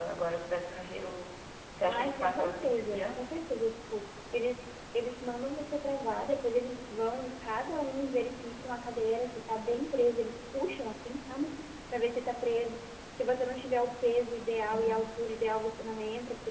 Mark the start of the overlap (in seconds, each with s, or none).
1.8 s